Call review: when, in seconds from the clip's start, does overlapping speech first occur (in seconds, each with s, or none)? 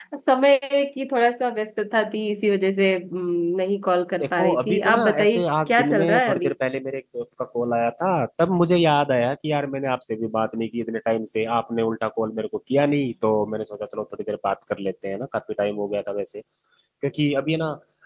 4.2 s